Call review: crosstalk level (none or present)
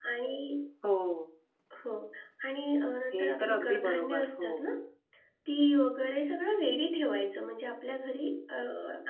present